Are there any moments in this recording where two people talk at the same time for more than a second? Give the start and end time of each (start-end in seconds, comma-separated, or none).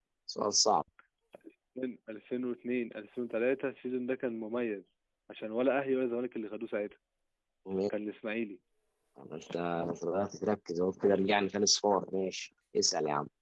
none